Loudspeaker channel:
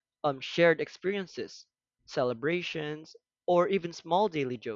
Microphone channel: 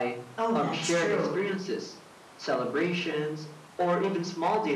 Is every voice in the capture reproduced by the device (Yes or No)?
No